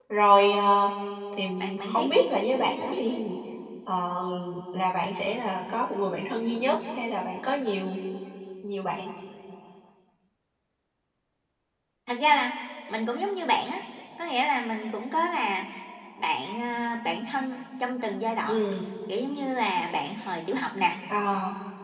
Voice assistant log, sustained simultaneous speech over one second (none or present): present